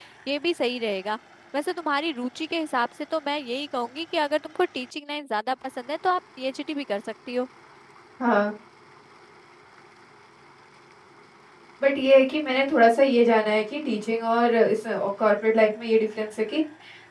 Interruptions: none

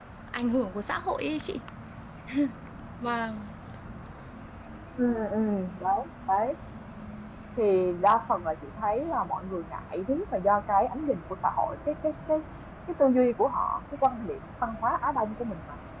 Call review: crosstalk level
none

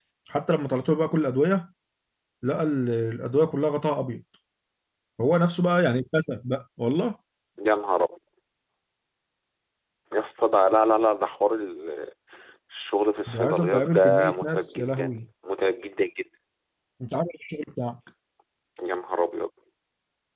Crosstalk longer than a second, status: present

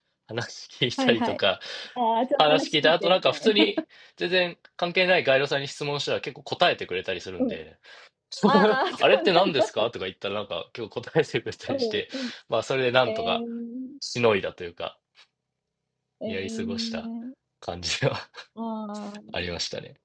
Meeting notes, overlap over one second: present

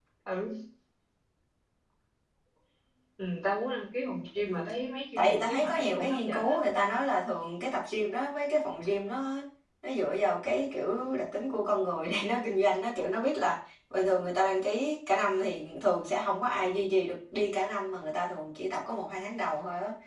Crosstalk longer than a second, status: present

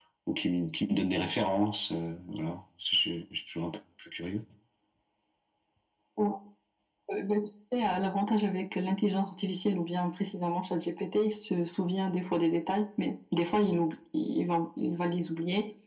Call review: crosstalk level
none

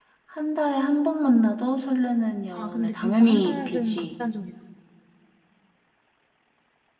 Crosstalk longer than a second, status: present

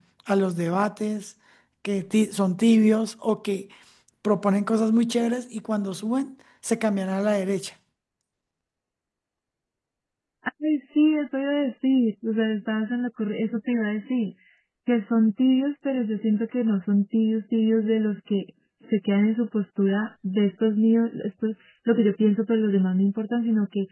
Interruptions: none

